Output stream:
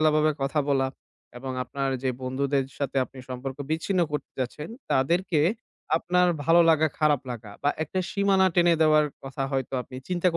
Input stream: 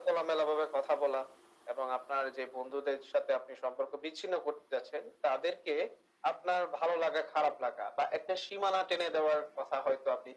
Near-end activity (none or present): none